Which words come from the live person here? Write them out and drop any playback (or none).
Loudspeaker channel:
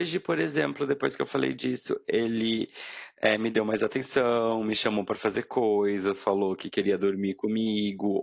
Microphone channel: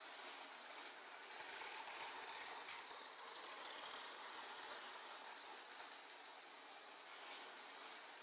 none